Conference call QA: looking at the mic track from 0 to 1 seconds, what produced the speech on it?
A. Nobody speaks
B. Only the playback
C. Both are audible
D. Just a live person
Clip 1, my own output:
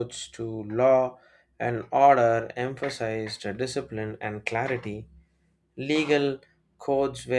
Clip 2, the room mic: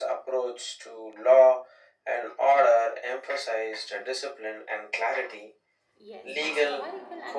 B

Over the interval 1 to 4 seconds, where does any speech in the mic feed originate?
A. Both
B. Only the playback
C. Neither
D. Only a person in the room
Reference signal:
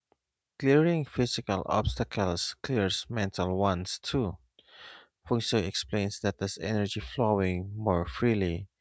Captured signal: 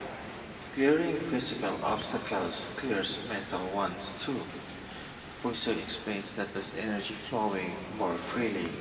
B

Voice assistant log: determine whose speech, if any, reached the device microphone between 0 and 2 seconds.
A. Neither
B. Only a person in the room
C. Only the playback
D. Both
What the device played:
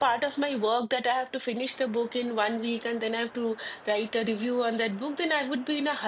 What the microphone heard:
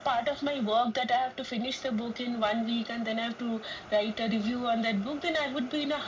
C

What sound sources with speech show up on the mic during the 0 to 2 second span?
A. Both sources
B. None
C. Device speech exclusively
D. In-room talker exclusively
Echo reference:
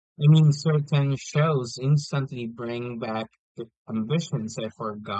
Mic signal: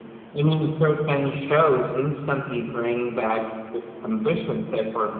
C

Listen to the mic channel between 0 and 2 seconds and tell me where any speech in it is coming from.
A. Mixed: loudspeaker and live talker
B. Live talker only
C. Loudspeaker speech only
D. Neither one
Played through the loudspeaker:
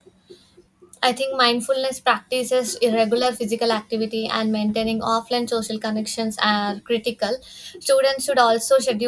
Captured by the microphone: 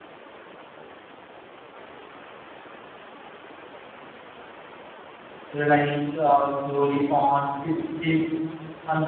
D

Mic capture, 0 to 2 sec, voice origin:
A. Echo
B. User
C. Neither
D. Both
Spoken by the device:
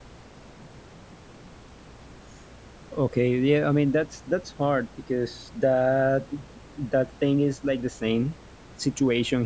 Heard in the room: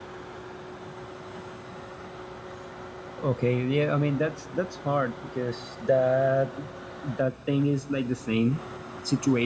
C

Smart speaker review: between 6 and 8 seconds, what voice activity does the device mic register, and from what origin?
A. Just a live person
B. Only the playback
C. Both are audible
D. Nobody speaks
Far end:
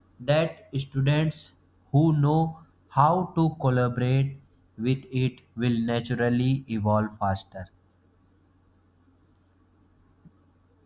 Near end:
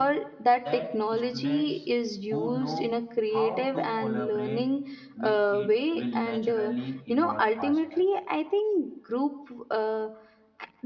C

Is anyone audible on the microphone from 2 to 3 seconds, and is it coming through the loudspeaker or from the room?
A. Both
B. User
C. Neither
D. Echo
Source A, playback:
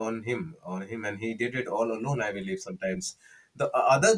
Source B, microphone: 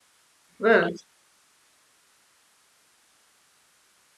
C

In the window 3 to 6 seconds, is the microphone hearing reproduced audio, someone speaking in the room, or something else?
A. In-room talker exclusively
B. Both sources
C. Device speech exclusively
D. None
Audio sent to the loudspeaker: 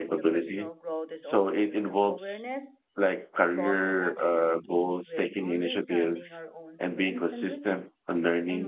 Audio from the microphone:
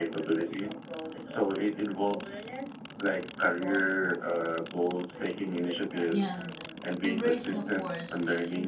C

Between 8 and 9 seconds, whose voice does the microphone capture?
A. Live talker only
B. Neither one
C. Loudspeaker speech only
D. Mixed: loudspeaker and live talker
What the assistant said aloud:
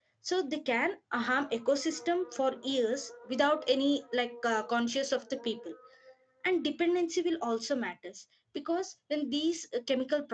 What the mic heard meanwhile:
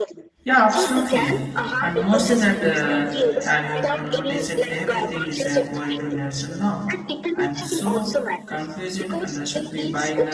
D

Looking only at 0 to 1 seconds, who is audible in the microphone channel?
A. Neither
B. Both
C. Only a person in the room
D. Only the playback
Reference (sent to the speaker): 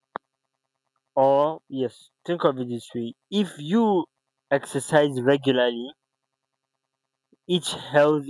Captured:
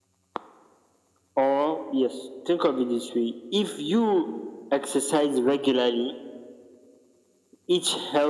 A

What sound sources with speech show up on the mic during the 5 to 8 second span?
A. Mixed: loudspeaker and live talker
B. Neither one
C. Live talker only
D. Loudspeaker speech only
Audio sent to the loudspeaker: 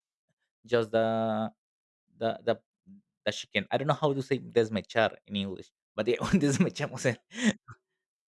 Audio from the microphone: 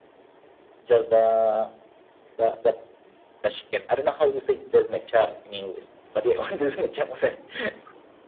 D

